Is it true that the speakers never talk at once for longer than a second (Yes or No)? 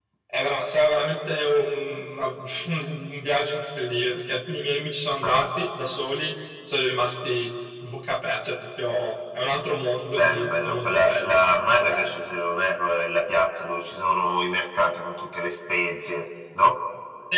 No